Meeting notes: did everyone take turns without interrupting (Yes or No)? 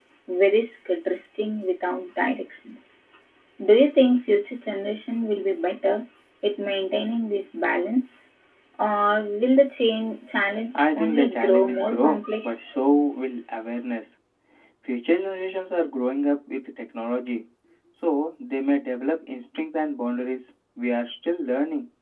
No